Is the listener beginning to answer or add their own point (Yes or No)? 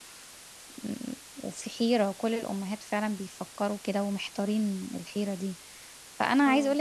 No